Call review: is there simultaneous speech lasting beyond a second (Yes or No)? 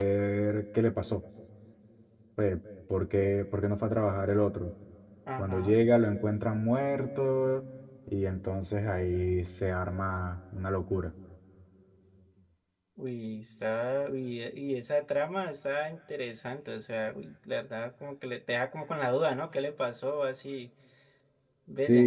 No